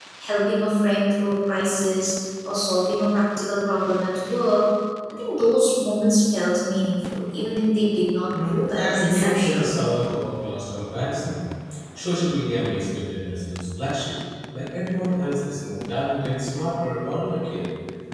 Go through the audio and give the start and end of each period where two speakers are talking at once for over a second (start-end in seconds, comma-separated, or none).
8.5-9.8